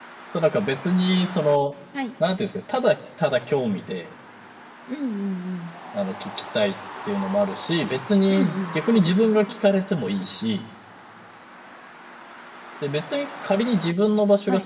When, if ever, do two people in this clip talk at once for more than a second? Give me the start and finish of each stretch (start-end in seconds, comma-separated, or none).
8.3-9.6